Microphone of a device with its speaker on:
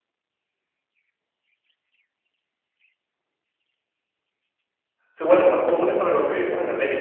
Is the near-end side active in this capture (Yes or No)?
Yes